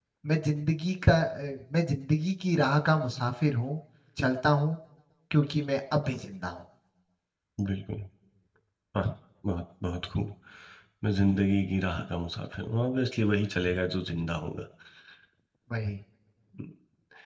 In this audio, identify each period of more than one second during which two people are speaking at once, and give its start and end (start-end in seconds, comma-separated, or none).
none